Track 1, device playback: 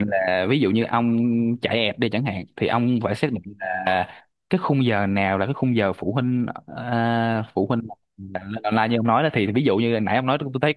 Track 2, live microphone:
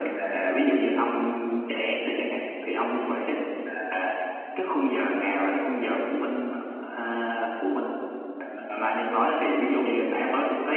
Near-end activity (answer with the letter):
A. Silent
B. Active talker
A